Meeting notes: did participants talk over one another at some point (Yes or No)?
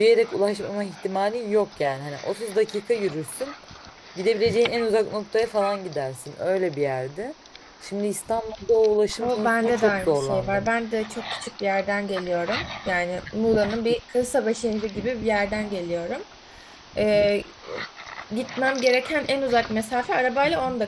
Yes